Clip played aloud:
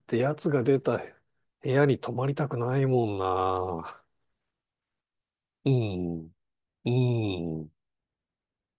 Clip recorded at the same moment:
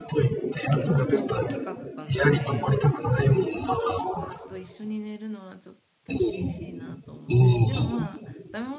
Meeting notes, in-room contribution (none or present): present